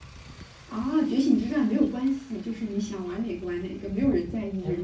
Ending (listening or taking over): taking over